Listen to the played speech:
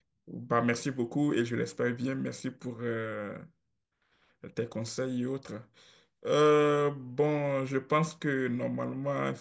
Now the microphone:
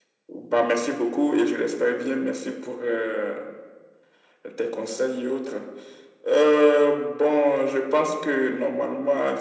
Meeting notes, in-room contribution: none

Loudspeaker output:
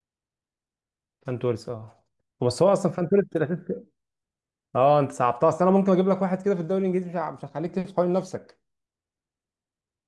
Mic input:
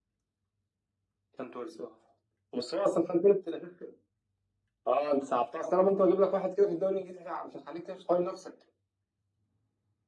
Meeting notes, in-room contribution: none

